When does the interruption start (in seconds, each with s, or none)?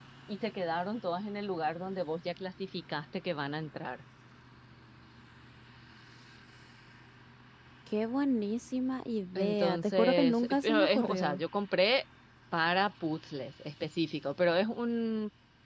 9.3 s